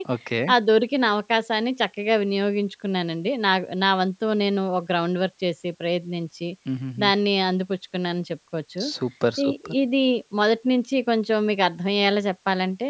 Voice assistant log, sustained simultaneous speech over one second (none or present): none